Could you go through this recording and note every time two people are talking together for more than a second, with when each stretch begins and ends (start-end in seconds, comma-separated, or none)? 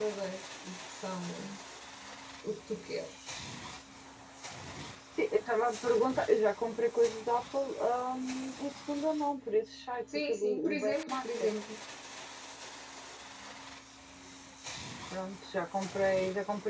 10.3-11.5